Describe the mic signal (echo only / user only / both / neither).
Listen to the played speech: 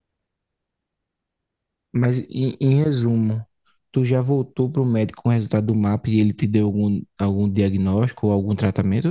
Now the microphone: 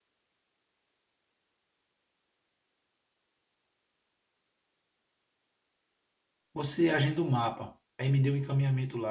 user only